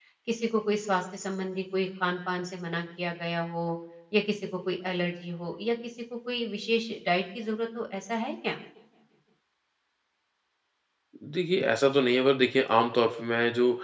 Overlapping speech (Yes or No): No